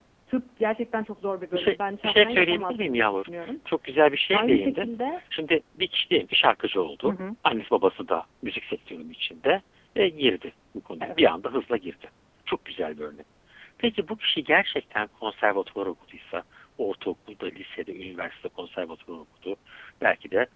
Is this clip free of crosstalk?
No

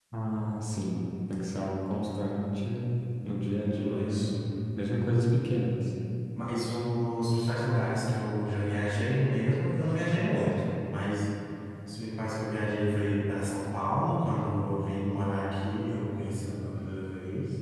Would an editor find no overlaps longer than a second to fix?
Yes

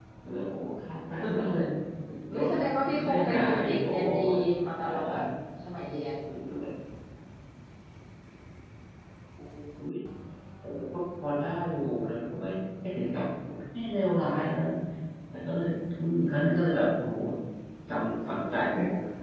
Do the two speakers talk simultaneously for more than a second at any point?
Yes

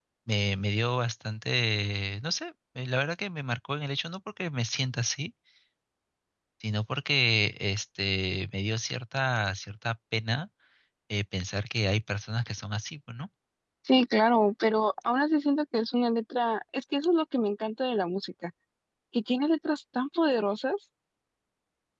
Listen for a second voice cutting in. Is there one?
No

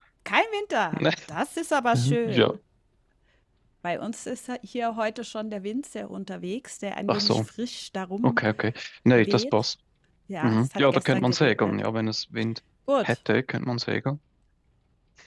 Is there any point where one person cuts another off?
Yes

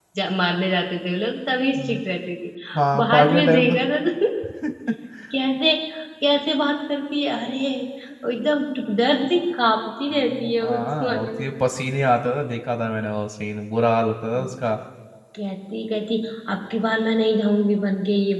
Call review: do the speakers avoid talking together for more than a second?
No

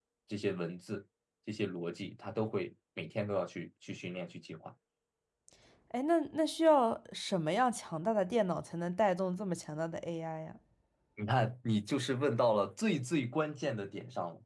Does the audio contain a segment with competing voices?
No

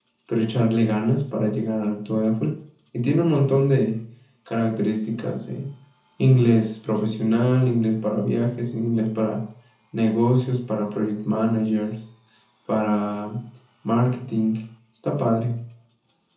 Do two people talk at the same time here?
No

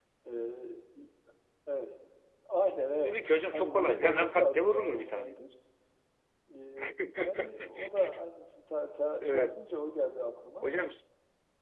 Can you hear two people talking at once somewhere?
Yes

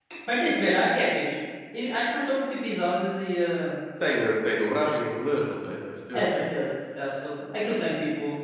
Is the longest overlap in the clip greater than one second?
No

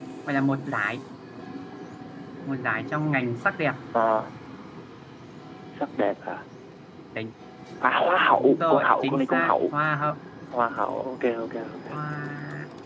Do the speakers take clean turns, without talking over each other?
No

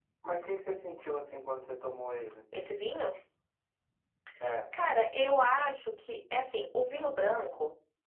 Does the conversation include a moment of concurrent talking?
No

